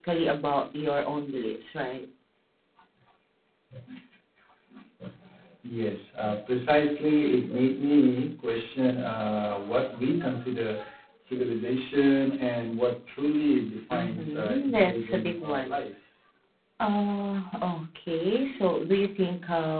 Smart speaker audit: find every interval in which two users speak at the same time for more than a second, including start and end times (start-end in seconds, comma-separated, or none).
13.9-15.7